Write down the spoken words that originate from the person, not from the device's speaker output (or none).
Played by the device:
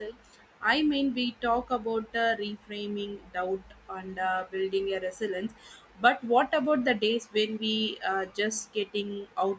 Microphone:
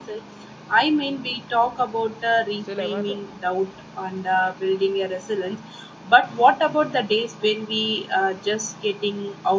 Still, Amanda,